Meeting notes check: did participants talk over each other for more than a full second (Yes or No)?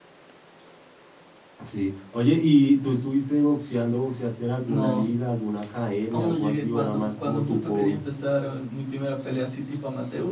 Yes